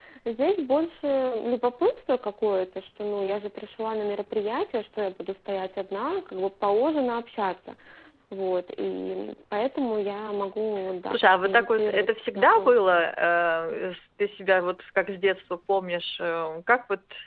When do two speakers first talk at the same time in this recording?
11 s

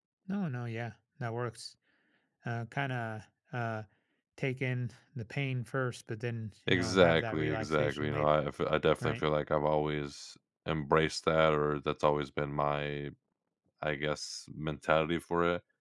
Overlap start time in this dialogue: 7 s

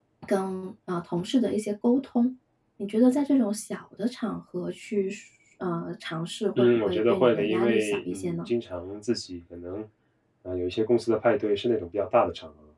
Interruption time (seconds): 7 s

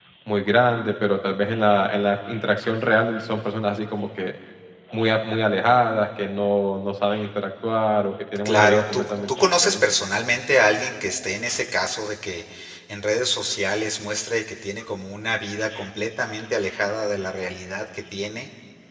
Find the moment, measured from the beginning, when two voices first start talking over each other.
8 s

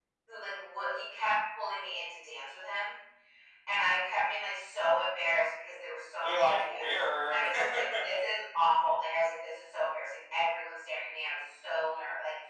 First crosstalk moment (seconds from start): 6 s

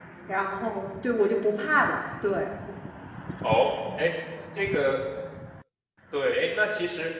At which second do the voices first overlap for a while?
none

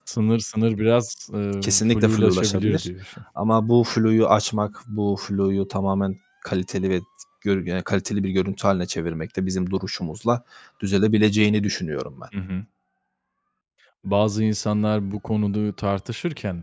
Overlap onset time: 2 s

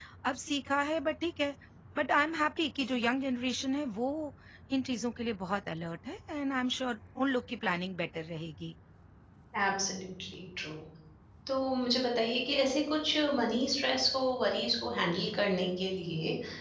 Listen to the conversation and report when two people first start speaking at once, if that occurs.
none

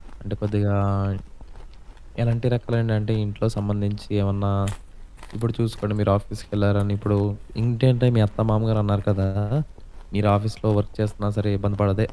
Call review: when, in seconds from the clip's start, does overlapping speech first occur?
none

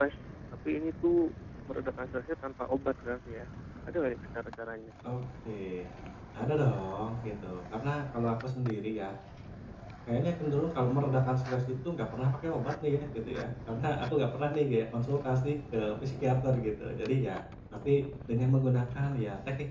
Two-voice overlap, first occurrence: none

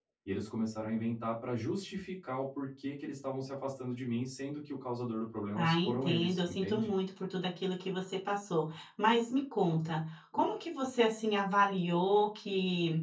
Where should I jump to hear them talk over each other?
6 s

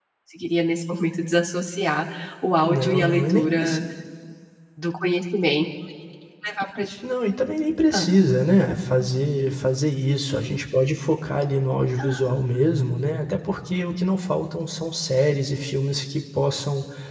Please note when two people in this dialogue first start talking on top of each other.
3 s

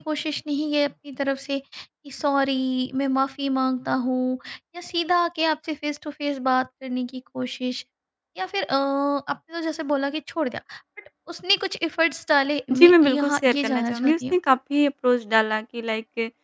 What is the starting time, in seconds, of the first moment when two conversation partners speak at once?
13 s

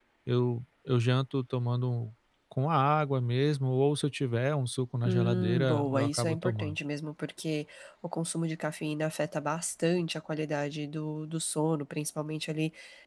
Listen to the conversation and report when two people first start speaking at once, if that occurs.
5 s

